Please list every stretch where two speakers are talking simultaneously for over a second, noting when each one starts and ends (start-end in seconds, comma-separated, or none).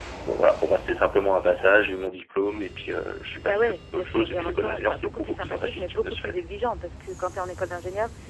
3.4-6.4